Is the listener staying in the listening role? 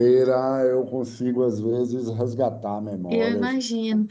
No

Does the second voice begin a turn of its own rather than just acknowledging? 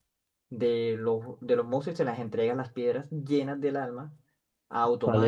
Yes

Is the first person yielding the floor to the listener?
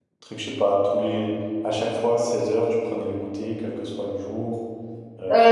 Yes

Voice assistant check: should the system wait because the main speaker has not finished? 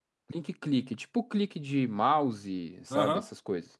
No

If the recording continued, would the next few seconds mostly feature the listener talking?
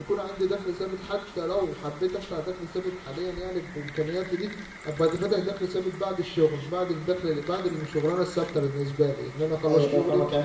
Yes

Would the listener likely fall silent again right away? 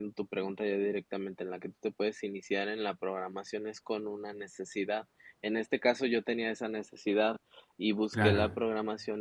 Yes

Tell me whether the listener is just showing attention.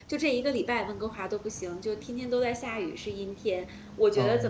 Yes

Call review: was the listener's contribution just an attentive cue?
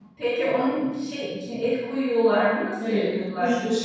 No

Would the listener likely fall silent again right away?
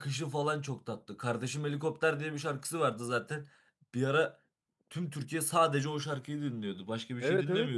No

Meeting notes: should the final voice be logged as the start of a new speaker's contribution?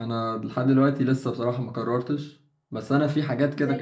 No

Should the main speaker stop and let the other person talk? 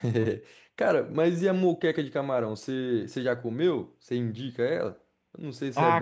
Yes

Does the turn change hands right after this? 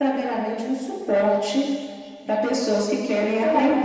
Yes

